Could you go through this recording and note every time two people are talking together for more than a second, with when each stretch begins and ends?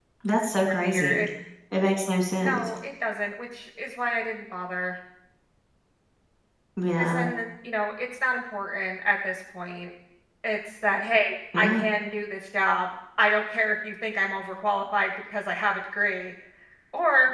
none

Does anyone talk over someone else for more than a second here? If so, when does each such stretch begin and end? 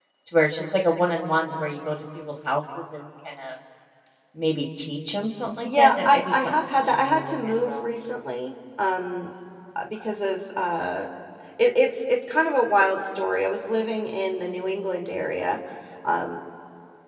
5.6-7.9

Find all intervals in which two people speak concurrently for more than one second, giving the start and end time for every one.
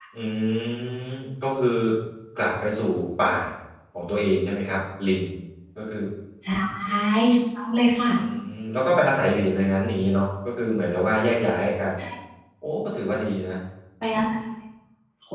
none

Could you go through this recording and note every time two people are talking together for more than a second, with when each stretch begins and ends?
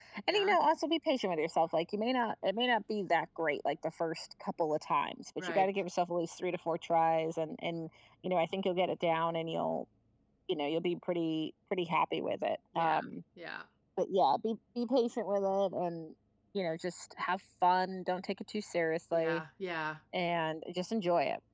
none

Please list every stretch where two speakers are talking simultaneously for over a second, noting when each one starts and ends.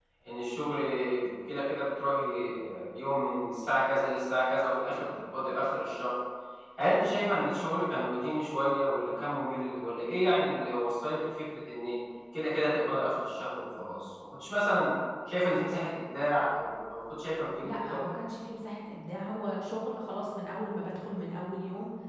none

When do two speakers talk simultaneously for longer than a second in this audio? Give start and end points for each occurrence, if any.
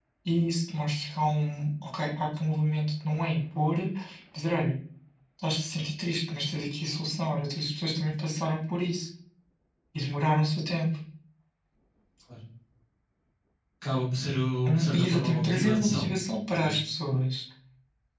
14.7-16.0

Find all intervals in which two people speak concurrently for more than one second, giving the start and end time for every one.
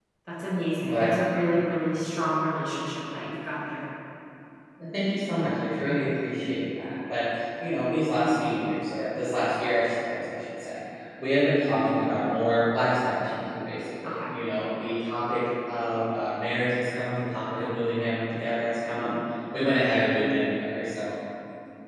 none

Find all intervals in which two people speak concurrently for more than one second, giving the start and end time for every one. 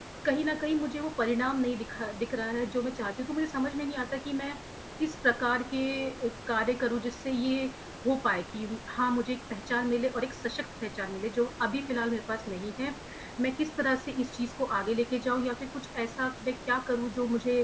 none

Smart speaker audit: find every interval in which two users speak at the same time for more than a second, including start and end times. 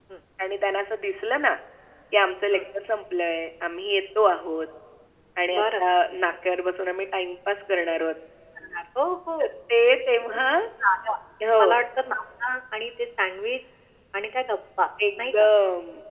none

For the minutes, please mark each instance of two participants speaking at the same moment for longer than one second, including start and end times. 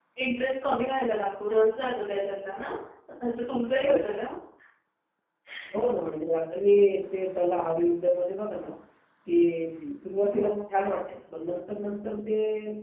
none

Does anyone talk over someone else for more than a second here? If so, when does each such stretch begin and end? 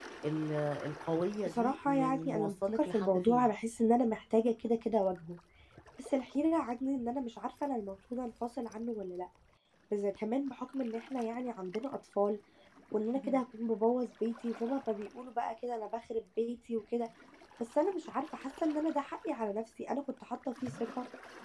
1.4-3.5

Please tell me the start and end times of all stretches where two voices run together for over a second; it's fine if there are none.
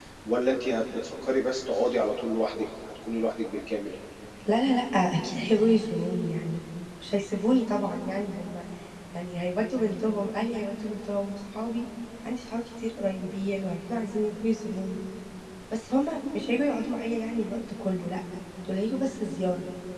none

